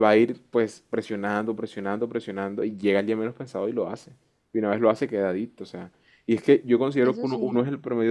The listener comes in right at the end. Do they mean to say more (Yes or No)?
No